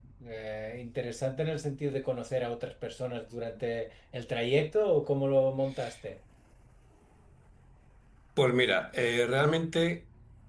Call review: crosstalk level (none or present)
none